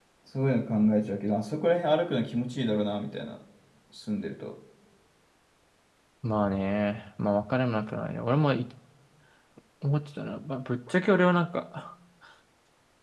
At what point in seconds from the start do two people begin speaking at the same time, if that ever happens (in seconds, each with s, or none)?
none